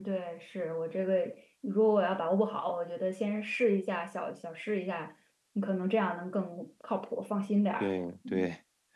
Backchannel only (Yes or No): No